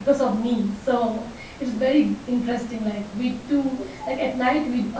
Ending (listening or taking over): listening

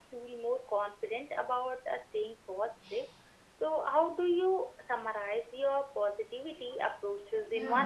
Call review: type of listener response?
taking over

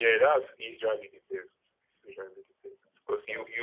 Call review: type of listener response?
listening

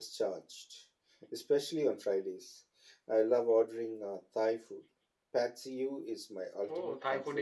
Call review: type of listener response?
taking over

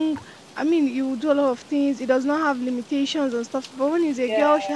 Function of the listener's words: listening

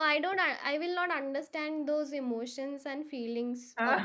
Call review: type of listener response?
taking over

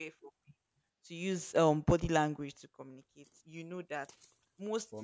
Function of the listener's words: listening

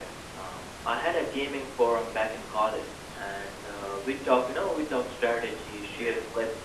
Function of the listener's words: listening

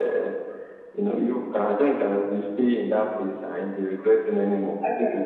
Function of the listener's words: taking over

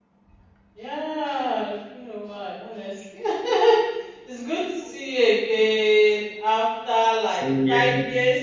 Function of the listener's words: listening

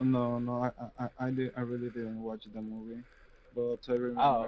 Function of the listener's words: listening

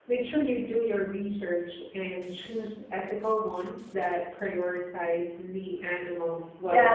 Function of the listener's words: taking over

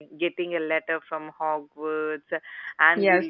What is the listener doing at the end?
listening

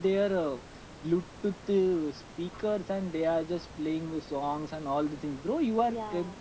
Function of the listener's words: listening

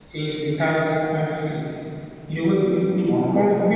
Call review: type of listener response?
listening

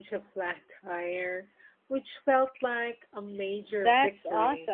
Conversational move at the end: taking over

